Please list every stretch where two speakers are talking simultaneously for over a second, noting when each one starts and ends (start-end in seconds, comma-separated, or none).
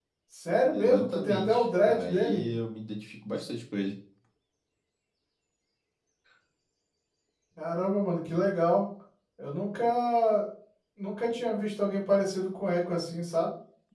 0.7-2.4